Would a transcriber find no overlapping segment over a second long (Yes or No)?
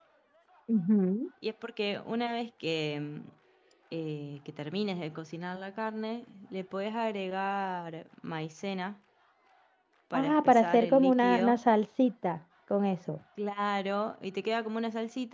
No